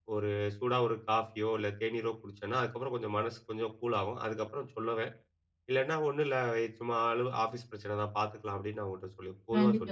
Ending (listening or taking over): taking over